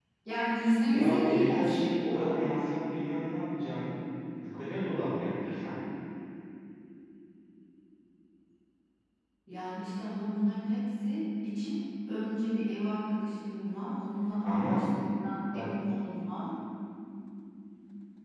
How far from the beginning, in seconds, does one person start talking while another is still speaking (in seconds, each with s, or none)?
0.9 s